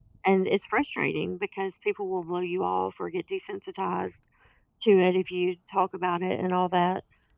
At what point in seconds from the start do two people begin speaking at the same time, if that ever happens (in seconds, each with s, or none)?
none